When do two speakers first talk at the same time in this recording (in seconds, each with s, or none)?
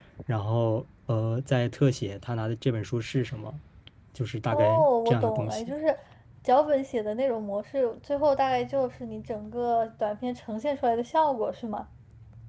4.5 s